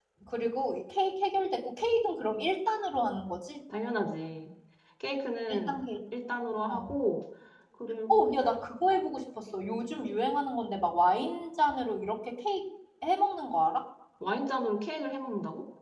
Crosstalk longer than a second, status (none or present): none